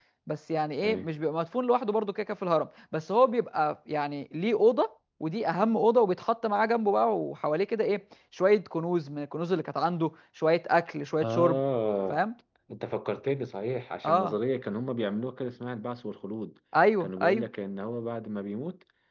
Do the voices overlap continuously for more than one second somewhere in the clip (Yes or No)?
No